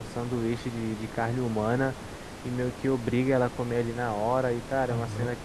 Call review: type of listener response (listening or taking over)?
listening